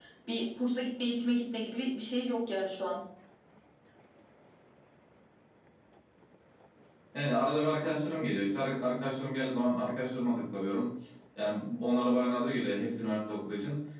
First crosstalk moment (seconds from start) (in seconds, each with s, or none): none